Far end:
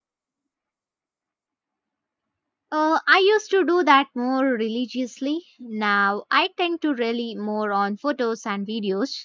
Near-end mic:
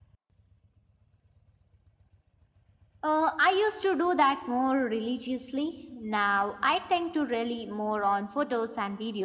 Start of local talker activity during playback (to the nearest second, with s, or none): none